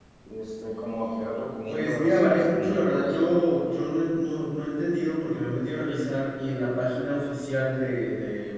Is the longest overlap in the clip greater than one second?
Yes, from 1.7 s

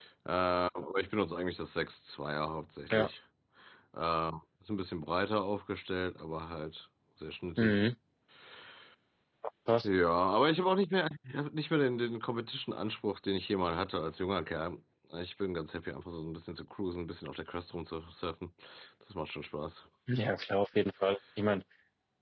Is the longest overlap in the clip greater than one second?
No

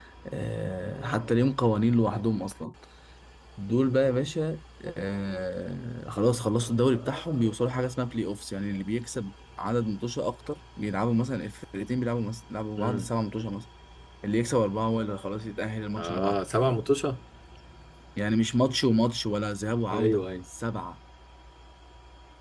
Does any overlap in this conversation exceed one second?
No

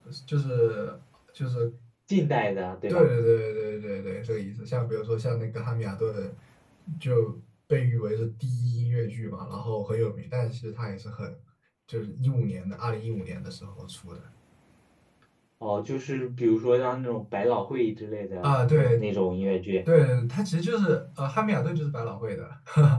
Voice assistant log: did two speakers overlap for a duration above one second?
No

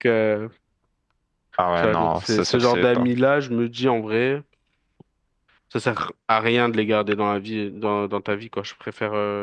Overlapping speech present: Yes, from 1.8 s

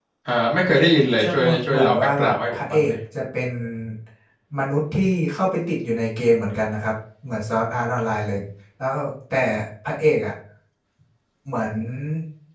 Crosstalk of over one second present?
Yes, from 1.2 s

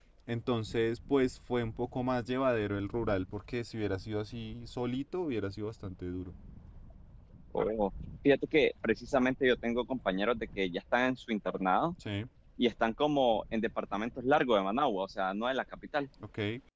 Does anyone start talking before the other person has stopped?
No

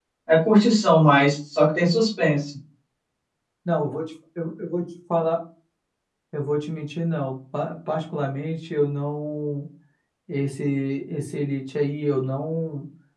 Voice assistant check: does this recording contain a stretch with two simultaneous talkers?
No

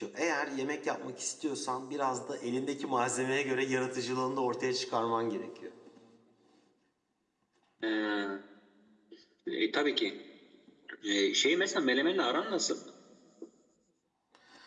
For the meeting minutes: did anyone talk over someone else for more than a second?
No

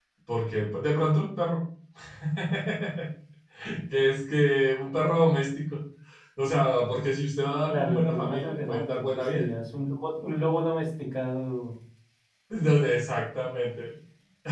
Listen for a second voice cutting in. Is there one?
Yes, from 7.7 s

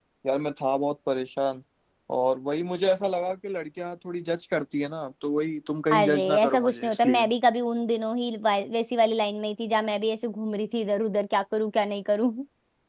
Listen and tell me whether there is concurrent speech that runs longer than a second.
Yes, from 5.9 s

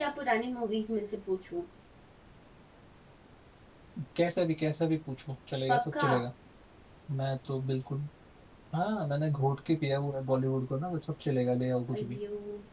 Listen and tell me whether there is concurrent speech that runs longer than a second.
No

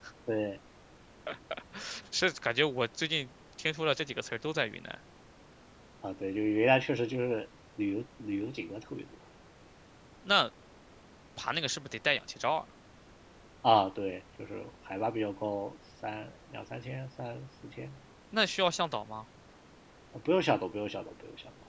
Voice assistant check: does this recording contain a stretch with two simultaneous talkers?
No

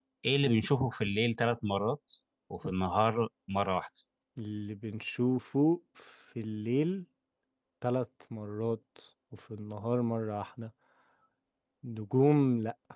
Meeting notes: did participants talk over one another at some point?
No

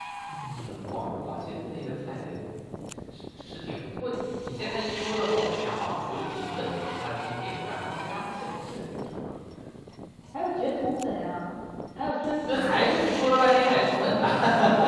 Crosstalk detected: Yes, from 12.5 s

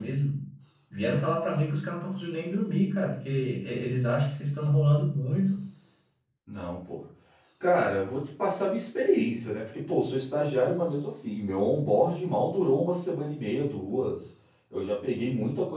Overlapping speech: No

